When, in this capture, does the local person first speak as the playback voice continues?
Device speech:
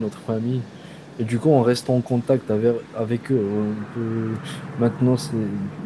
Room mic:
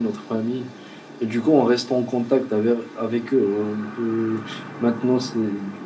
none

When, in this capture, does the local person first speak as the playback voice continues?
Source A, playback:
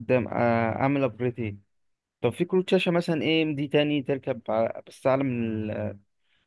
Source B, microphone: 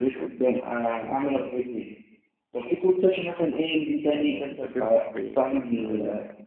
4.1 s

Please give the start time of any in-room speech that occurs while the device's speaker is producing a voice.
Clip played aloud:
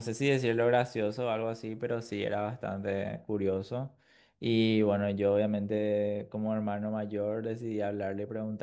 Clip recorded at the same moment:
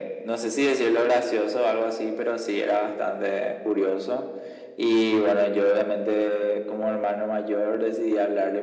none

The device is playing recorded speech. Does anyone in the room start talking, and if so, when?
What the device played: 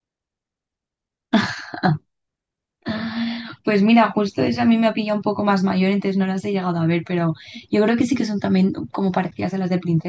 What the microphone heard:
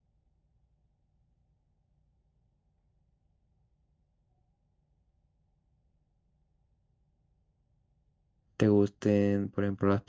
8.6 s

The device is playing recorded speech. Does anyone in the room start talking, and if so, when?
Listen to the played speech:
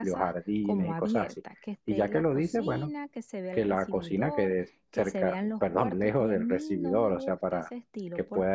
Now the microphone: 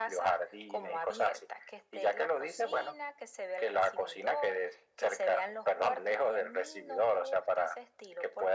none

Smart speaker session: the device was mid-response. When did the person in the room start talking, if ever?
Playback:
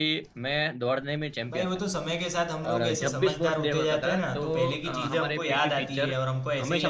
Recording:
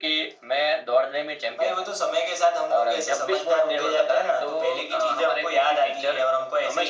none

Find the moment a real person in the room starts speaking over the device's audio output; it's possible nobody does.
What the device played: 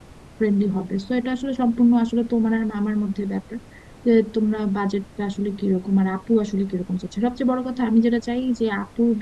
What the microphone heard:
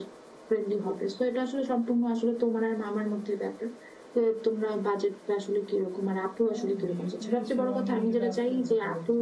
6.5 s

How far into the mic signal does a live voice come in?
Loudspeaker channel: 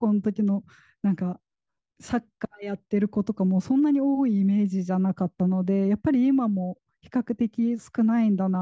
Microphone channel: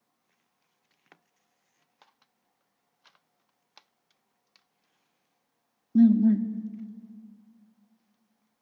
6.0 s

